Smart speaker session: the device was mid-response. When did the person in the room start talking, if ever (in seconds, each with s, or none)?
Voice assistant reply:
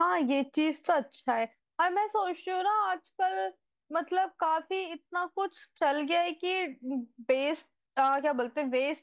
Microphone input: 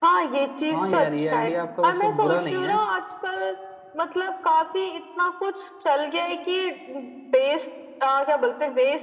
0.7 s